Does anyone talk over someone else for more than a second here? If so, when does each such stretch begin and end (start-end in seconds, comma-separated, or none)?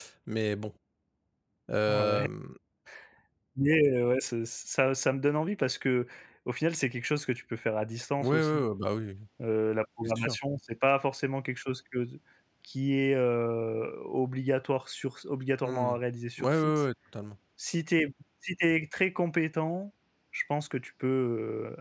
none